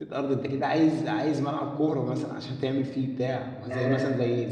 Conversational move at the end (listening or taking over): listening